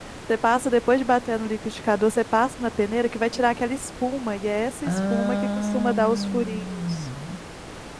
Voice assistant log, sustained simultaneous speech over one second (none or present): present